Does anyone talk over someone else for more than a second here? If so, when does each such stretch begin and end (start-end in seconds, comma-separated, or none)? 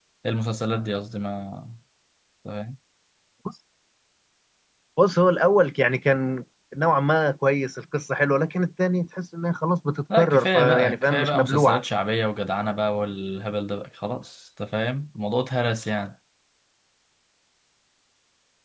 10.2-11.8